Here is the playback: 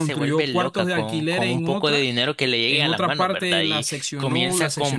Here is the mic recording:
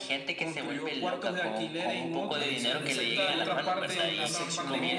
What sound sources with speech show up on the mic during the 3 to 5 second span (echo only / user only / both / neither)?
both